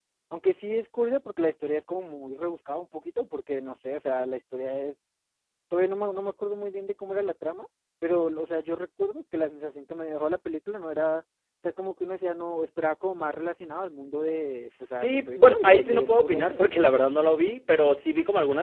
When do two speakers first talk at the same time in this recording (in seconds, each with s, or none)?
14.7 s